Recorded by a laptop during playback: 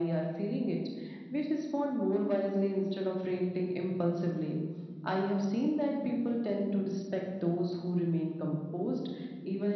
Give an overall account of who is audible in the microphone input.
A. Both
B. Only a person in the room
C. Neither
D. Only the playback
D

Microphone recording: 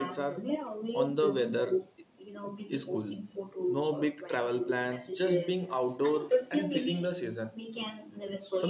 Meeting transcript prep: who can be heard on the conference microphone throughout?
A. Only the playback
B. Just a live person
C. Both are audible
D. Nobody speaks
C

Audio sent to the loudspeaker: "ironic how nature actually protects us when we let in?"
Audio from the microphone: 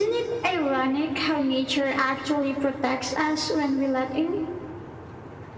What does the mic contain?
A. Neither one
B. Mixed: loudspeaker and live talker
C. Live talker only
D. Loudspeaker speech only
D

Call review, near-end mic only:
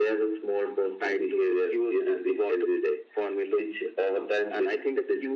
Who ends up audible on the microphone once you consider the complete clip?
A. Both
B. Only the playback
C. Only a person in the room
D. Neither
B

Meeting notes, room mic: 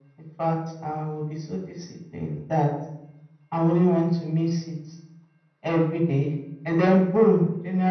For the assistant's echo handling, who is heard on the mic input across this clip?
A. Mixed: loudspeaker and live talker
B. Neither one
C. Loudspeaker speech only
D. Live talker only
C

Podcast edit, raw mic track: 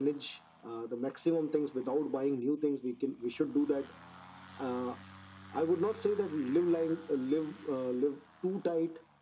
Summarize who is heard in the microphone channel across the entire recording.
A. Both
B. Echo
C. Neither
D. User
B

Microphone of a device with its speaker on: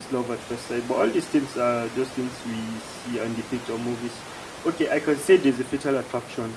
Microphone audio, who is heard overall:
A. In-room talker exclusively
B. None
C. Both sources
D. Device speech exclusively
A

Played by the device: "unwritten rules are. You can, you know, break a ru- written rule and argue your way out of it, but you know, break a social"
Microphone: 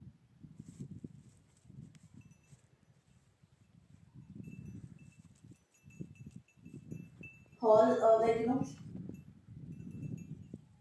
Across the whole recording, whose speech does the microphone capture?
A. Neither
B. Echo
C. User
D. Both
C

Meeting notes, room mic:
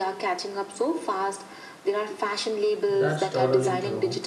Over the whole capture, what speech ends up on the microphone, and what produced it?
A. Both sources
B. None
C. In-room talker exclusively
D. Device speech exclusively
A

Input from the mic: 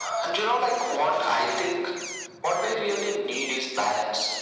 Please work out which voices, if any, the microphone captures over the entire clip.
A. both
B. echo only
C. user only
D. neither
B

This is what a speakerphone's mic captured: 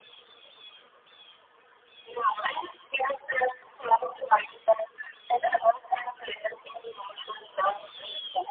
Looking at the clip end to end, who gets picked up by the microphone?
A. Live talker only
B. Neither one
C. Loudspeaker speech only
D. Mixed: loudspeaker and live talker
C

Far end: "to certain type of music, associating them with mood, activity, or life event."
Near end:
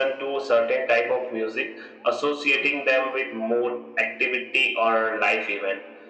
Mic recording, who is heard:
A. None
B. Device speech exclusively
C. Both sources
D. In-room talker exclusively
B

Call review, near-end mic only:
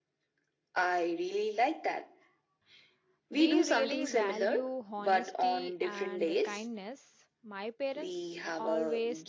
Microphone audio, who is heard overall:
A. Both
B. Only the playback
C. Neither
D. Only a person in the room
A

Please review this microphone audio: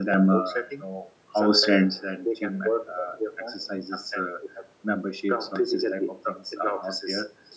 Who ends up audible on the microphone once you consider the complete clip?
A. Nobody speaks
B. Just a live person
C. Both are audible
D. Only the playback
C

